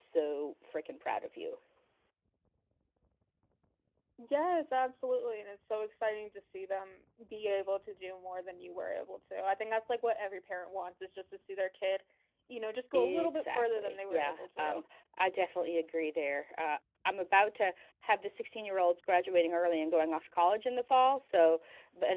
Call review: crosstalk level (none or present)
present